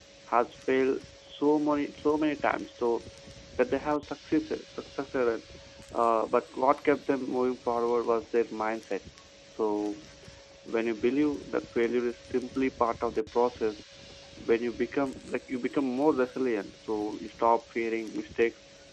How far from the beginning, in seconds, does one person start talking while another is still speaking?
none

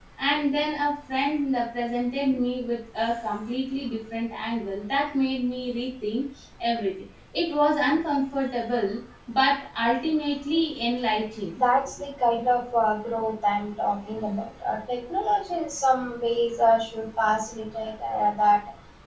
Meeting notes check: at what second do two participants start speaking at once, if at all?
none

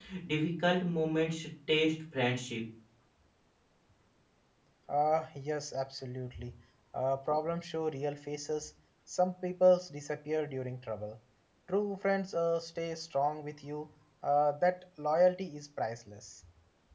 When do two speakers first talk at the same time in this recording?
none

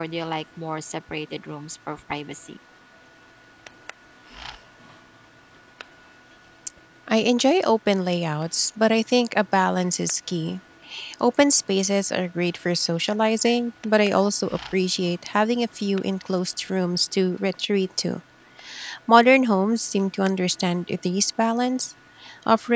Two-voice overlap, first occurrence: none

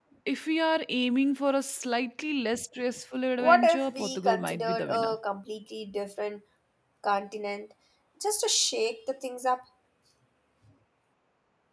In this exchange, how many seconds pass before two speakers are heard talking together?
3 s

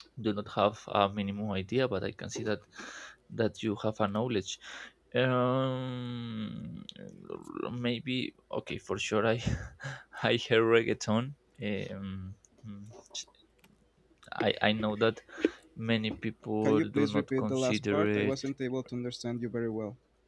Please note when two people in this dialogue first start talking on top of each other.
17 s

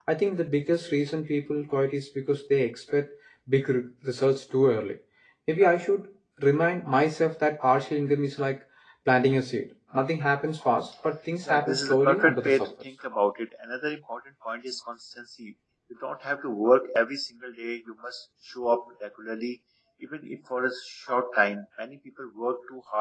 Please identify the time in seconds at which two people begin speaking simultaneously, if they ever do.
11 s

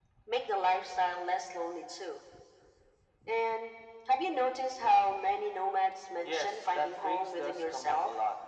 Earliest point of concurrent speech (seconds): 6 s

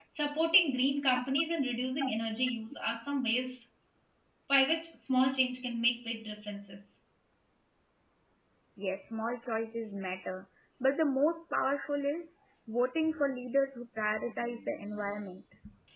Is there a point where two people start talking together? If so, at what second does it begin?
none

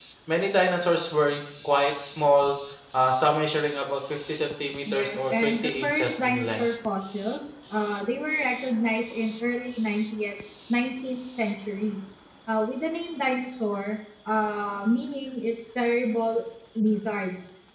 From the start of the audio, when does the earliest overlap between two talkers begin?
5 s

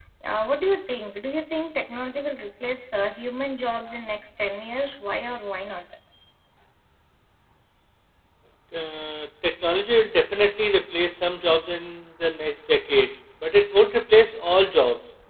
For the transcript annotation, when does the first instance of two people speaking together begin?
none

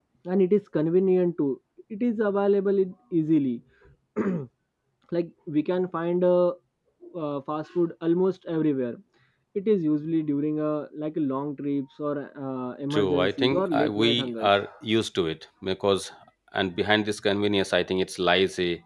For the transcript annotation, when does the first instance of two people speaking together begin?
13 s

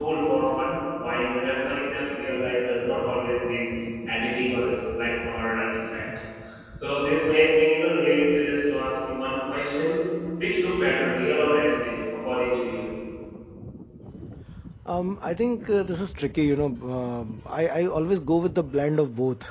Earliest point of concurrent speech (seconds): none

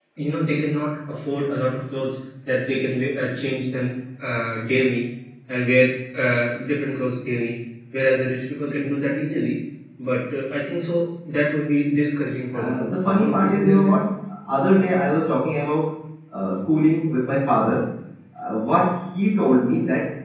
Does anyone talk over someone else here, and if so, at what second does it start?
13 s

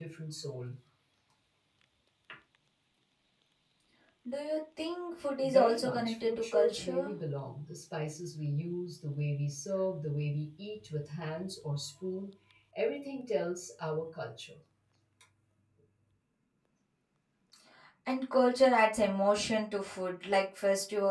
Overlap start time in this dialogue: 5 s

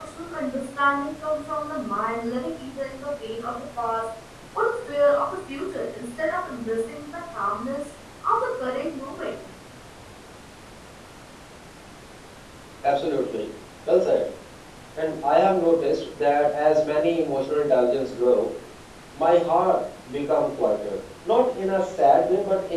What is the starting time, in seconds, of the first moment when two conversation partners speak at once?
none

